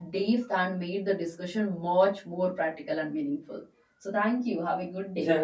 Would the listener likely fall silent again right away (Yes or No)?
No